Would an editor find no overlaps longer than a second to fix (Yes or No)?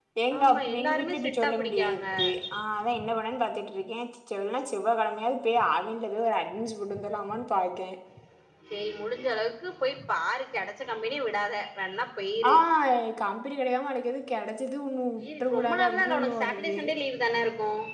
No